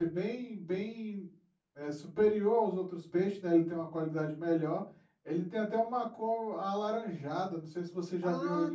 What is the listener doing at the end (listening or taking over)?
taking over